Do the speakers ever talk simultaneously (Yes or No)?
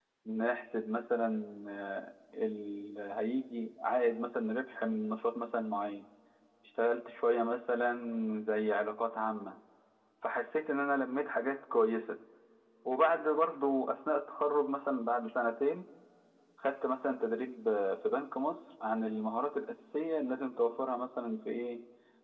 No